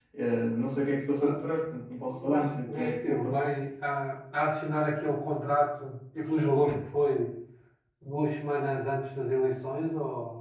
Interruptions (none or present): present